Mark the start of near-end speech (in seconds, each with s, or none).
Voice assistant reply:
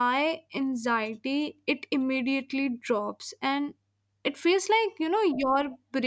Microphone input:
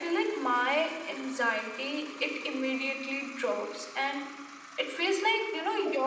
none